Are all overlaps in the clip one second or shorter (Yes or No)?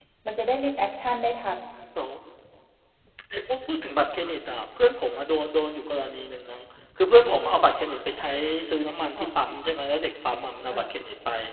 Yes